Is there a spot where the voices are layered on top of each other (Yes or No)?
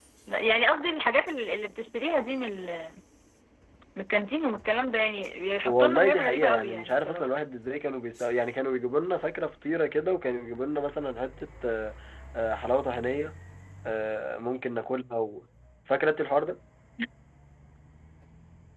Yes